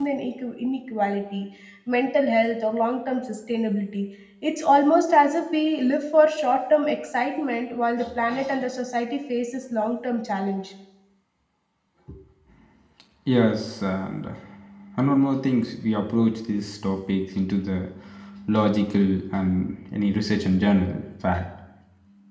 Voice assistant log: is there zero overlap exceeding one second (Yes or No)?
Yes